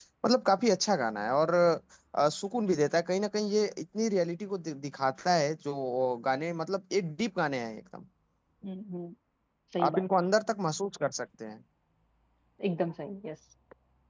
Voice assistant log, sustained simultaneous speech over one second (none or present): none